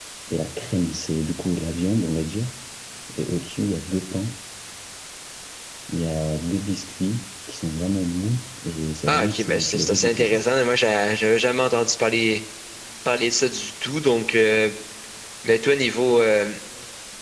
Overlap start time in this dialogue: 9.1 s

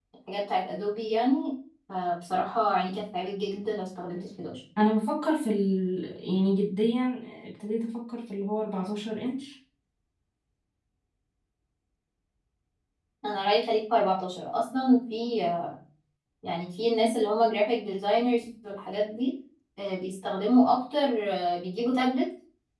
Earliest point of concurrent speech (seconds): none

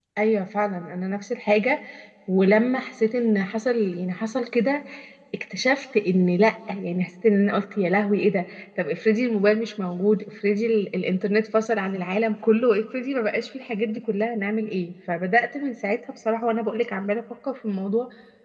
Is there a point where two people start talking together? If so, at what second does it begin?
none

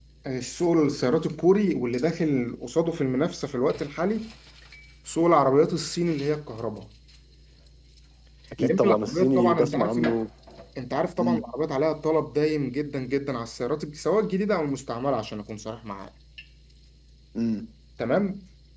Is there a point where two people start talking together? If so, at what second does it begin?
8.6 s

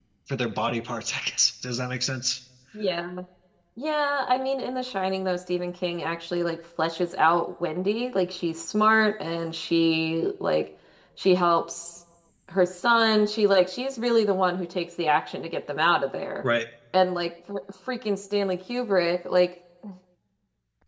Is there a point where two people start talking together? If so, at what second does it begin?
none

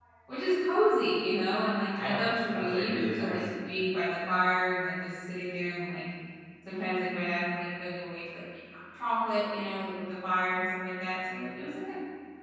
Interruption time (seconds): 2.0 s

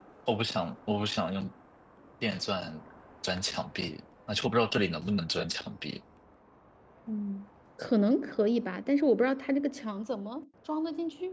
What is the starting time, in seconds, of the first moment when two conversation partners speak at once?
none

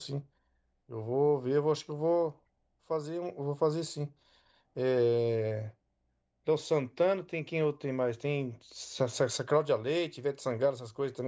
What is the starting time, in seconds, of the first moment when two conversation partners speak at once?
none

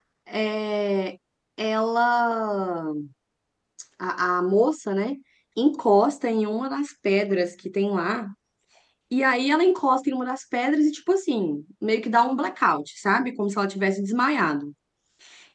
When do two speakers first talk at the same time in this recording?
none

